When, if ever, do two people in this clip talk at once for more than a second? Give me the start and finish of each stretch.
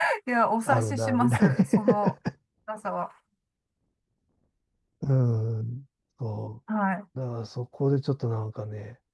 0.7-2.1

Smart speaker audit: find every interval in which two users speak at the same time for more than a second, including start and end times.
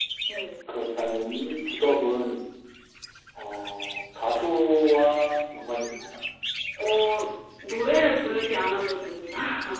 none

